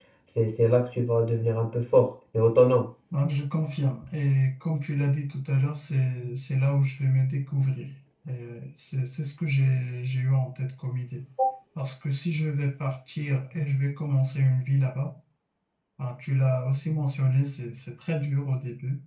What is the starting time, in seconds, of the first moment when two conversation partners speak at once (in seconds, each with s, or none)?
none